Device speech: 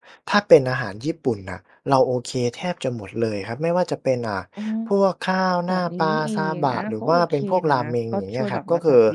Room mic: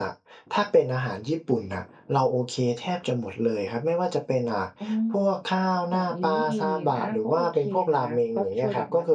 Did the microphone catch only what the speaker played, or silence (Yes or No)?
Yes